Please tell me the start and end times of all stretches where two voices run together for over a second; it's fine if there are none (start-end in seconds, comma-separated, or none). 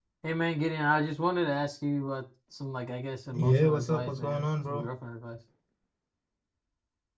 3.3-4.8